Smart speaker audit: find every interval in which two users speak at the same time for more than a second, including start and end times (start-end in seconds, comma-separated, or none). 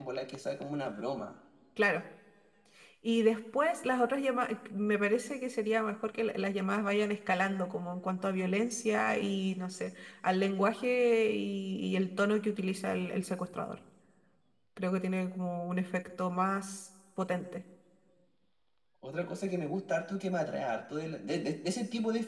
none